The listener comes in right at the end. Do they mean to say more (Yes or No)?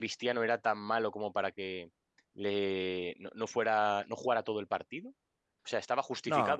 No